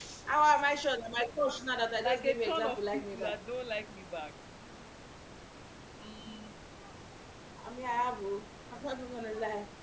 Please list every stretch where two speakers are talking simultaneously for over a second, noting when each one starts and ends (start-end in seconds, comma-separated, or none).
2.0-3.4